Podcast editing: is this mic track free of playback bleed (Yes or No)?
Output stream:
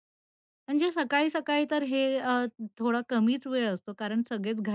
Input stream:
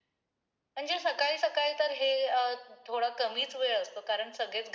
No